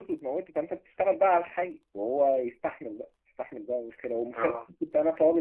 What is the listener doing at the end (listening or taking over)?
listening